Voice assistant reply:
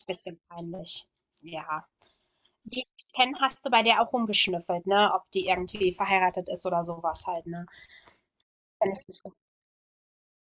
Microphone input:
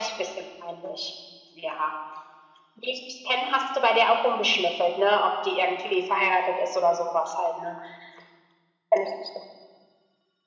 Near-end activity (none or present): none